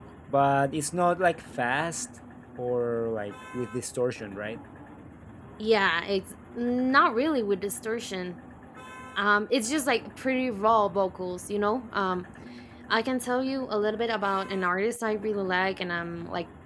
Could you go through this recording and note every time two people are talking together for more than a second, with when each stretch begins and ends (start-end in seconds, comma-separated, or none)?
none